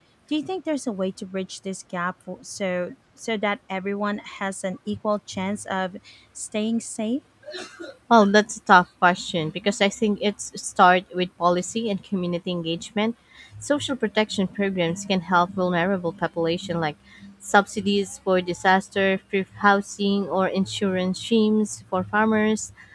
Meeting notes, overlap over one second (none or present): none